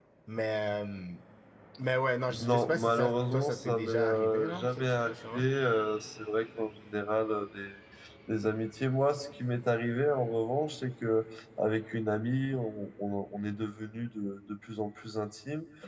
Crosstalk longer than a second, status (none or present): present